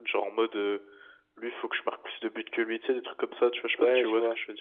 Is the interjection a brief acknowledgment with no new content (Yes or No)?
No